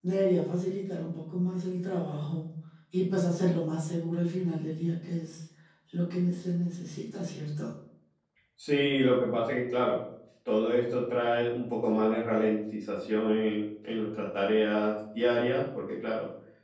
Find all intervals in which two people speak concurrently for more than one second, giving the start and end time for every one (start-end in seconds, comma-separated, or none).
none